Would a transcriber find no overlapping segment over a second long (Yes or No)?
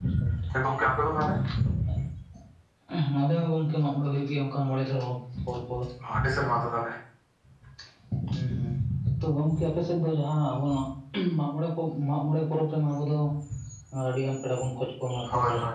Yes